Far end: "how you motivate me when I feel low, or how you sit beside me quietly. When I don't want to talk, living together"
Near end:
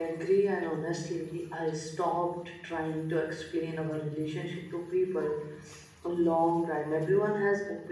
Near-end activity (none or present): present